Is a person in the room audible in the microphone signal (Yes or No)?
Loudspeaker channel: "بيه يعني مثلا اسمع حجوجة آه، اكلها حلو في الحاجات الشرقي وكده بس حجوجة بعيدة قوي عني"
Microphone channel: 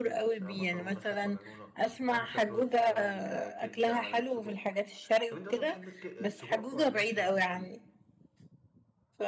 Yes